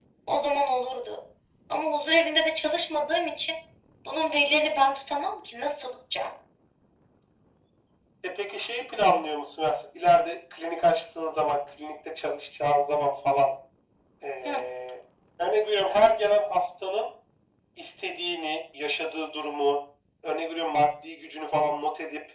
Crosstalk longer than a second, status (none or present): none